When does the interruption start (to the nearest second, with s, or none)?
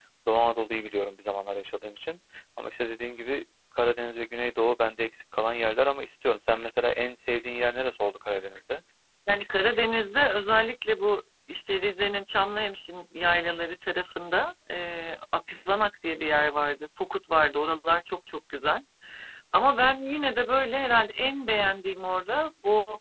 none